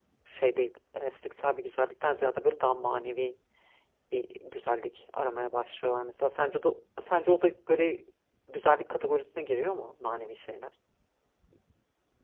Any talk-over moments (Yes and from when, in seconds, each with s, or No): No